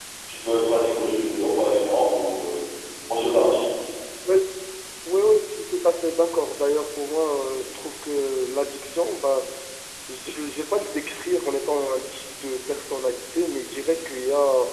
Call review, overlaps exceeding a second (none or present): none